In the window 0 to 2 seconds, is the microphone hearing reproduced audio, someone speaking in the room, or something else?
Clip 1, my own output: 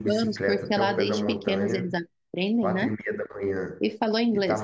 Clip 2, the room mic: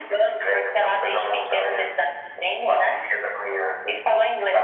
echo only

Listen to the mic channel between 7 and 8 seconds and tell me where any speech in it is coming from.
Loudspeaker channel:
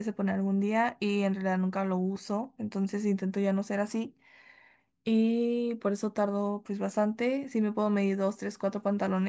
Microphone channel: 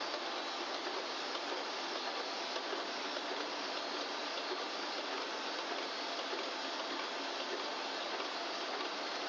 neither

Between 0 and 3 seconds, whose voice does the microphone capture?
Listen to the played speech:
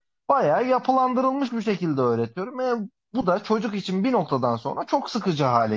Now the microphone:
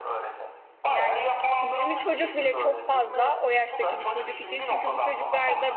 both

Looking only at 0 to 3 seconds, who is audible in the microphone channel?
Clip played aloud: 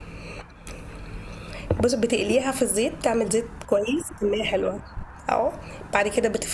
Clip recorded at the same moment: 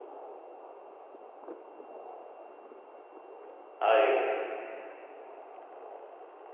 neither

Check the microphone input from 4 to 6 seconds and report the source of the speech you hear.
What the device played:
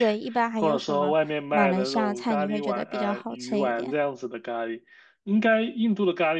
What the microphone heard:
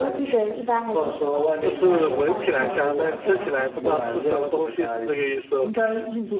both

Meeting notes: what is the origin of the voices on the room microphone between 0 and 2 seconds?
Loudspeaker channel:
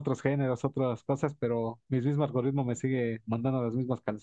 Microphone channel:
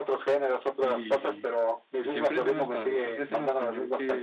both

